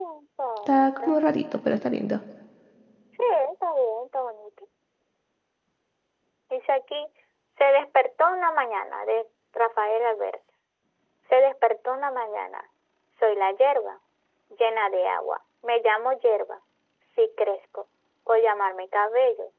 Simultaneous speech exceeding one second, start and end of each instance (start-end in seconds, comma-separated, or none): none